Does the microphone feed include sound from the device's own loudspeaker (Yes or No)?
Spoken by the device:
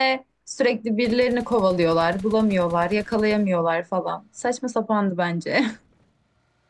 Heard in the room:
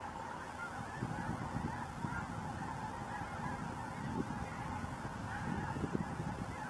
No